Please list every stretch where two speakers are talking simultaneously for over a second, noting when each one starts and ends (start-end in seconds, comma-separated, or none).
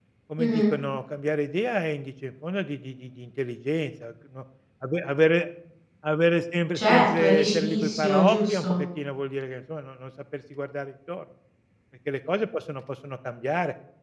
6.7-8.8